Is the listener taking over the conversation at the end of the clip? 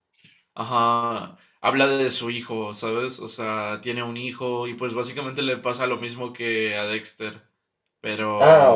Yes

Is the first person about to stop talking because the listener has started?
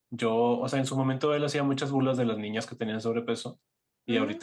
No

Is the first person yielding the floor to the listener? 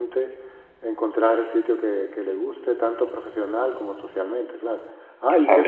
Yes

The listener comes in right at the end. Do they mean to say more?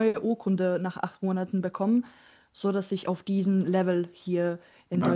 Yes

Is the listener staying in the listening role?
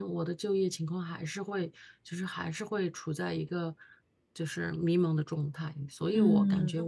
Yes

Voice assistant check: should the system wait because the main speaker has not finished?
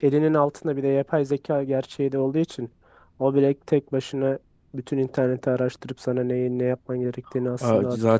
No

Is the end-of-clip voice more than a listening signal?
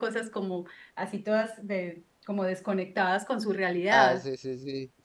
Yes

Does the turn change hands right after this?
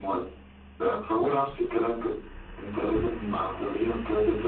No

